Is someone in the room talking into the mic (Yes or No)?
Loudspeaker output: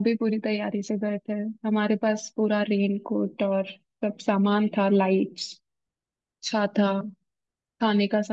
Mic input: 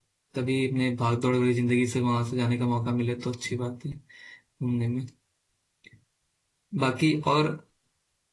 Yes